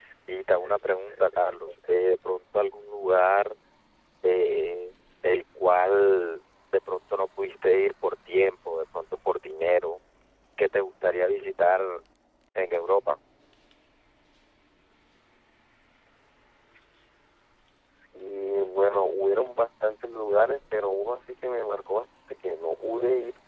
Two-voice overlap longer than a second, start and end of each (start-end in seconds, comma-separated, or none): none